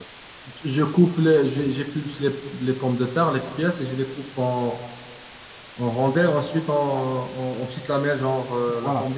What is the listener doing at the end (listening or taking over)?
taking over